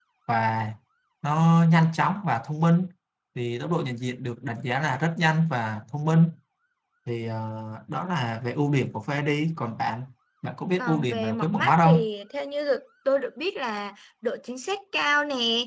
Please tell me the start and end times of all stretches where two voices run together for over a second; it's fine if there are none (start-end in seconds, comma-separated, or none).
10.8-12.1